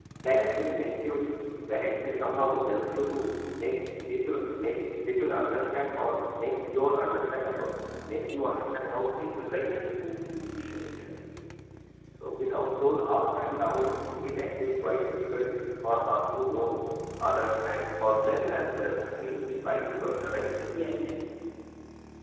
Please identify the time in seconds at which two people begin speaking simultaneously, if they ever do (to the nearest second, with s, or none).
none